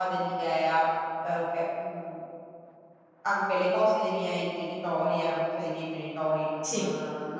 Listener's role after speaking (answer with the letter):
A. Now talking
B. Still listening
B